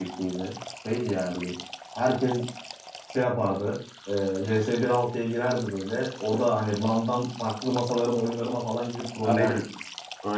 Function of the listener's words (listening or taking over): taking over